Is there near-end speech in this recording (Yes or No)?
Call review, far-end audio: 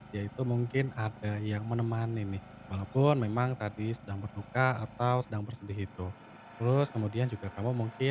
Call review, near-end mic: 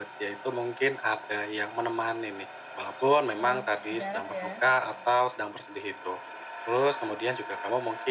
Yes